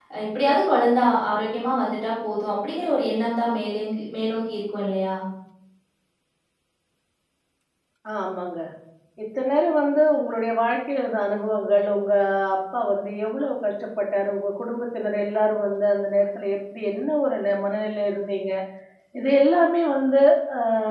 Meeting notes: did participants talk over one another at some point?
No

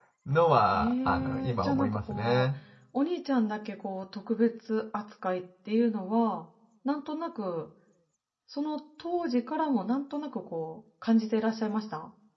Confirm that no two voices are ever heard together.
No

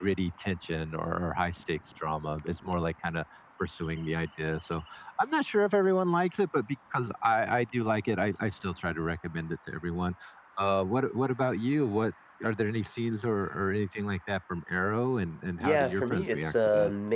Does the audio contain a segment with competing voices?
Yes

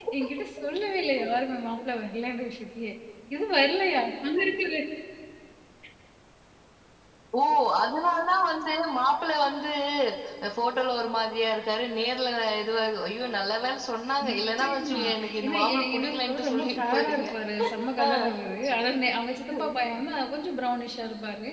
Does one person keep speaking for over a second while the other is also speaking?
Yes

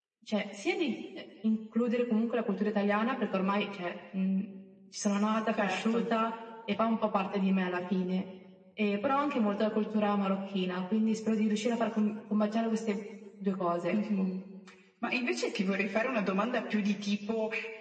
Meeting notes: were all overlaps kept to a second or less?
Yes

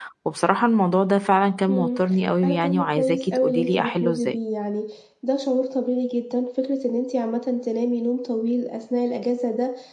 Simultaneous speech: Yes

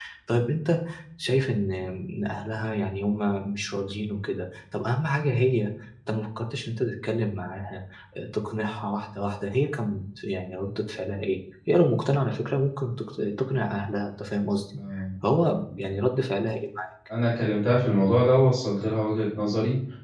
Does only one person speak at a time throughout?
Yes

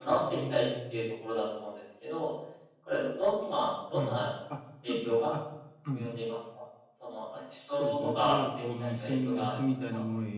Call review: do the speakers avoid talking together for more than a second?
No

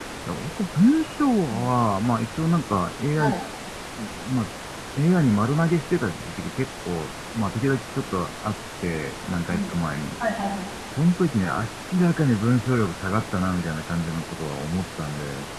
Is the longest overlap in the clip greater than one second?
No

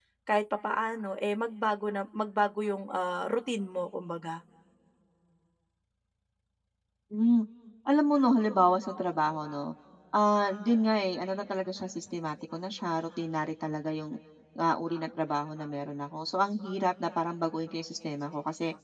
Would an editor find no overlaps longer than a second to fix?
Yes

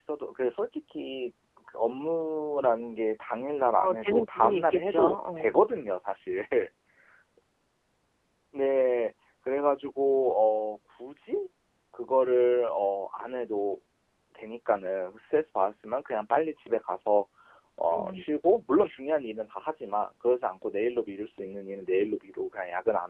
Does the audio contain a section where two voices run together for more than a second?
Yes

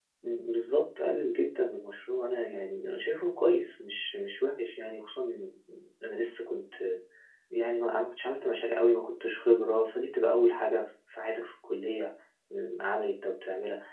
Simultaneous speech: No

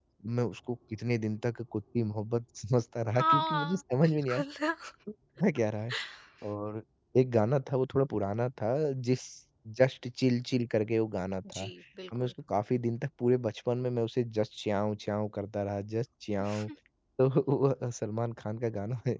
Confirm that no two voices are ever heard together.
No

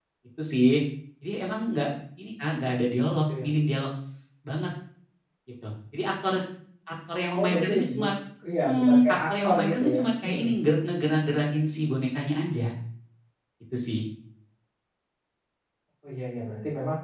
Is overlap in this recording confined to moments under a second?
No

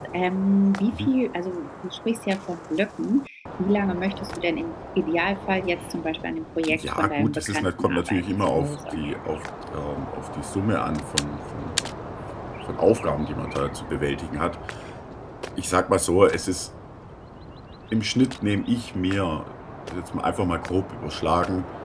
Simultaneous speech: Yes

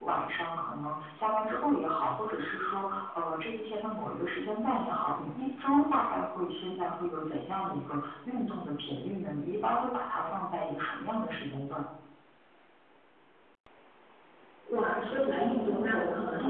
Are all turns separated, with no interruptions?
Yes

